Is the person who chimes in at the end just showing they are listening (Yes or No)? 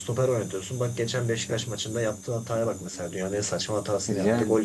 Yes